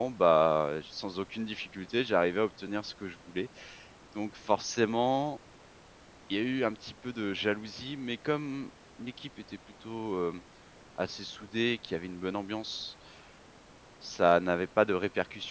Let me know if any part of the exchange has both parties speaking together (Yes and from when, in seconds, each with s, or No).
No